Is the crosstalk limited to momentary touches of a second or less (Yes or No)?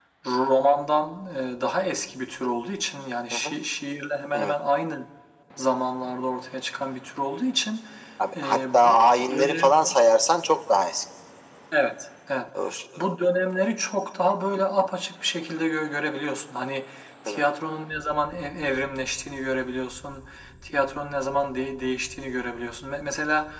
No